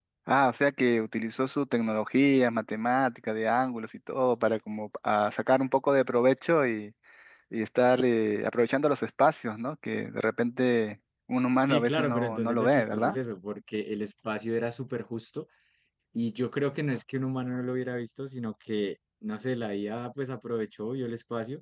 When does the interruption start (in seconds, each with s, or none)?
11.6 s